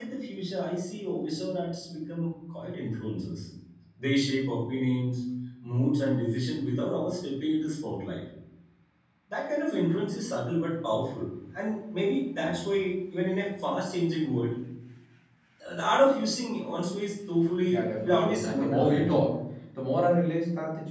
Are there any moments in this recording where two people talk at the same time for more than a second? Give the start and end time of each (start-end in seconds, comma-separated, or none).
17.6-19.1